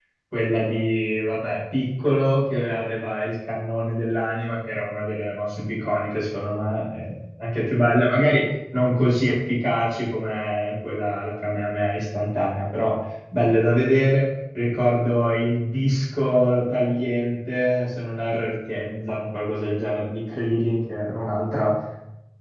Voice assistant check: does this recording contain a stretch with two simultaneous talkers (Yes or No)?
No